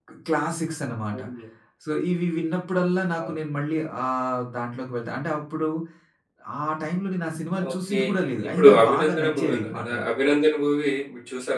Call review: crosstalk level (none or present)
present